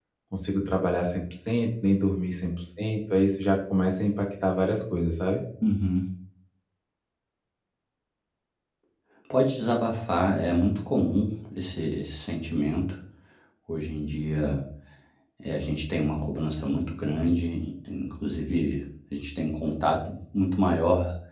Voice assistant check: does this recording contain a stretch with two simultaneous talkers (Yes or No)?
No